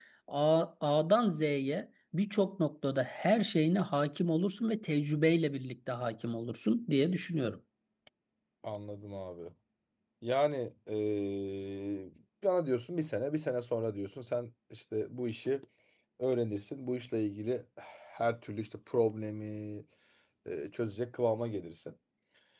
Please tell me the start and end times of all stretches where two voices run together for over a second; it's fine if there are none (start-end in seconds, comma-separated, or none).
none